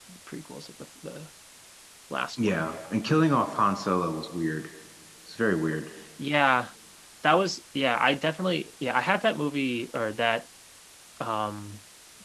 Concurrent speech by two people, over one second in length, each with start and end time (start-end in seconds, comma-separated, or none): none